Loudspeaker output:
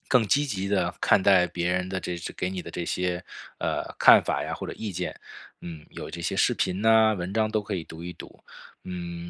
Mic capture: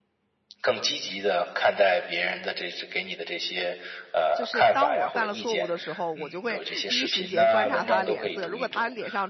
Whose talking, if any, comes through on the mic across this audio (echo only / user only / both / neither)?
both